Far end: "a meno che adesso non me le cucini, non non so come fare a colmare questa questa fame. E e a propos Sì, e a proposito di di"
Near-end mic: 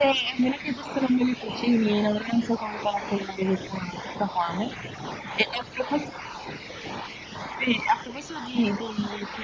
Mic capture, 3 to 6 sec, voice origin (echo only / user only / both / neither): echo only